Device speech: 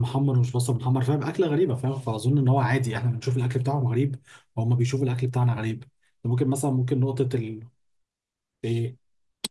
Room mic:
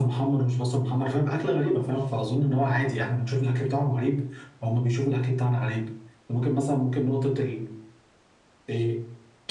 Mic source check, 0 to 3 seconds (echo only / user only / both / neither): echo only